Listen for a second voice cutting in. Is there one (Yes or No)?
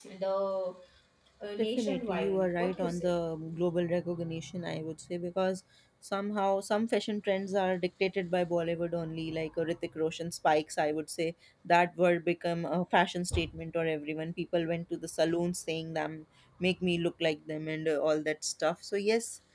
Yes